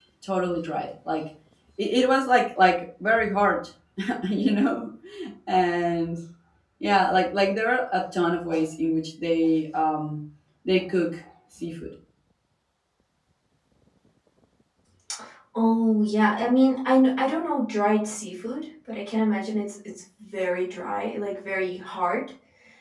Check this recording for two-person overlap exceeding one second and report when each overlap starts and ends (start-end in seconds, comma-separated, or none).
none